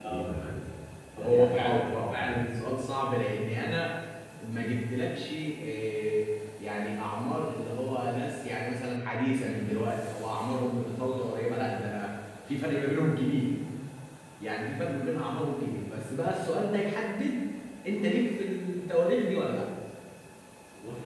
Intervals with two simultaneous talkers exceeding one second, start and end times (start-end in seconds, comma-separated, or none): 1.2-2.4